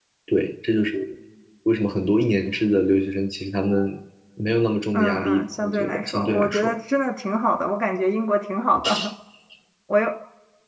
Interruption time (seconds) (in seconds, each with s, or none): 4.9 s